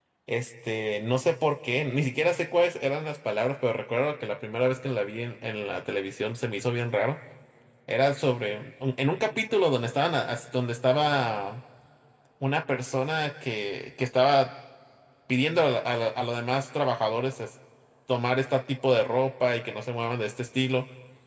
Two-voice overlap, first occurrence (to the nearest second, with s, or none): none